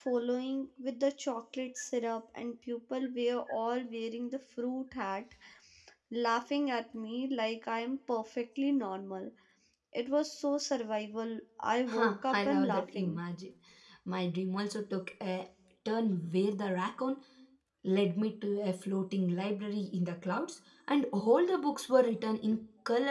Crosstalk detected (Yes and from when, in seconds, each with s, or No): Yes, from 11.9 s